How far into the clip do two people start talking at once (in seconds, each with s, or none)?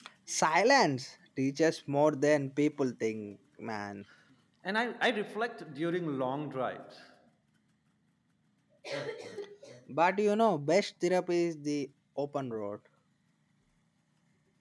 none